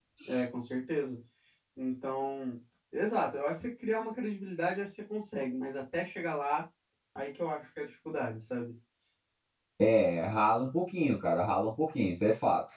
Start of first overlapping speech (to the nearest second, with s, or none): none